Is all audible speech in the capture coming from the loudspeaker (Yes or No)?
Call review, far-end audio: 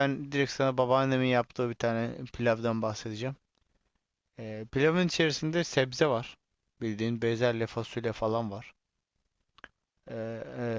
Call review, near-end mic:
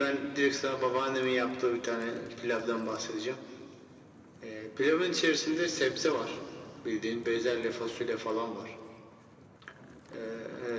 Yes